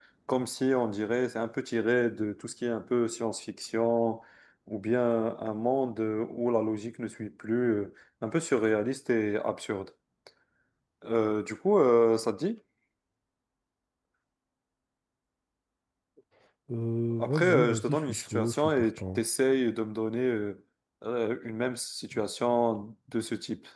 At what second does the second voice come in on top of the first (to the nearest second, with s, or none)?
17 s